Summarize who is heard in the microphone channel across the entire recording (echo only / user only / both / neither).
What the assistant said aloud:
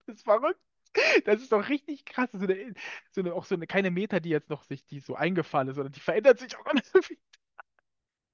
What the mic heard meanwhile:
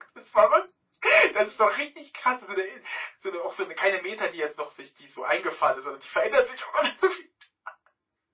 echo only